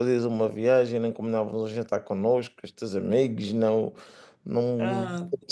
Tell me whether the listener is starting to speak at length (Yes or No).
Yes